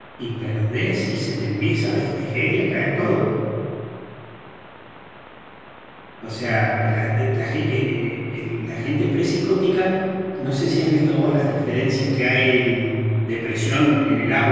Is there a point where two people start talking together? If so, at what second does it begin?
none

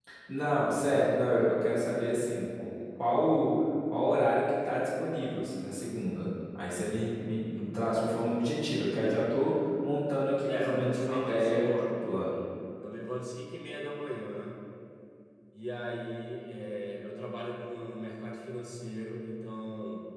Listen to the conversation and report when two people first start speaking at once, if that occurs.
10.4 s

